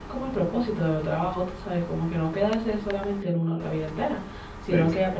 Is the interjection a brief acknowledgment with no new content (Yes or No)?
Yes